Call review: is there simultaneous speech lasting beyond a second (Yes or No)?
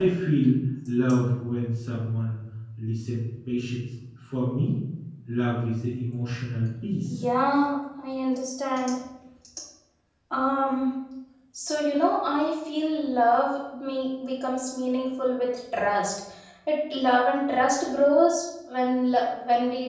No